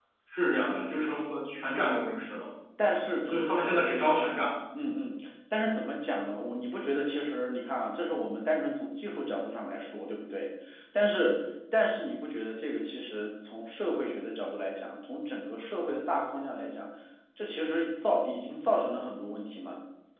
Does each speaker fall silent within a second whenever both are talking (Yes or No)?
Yes